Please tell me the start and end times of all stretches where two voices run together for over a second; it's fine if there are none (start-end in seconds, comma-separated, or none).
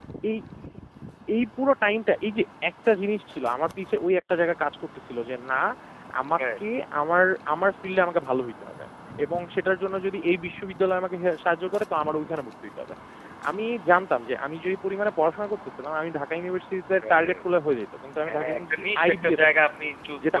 18.3-19.6